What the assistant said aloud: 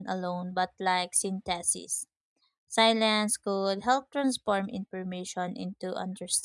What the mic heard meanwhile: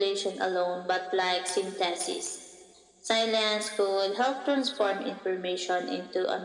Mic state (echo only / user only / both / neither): echo only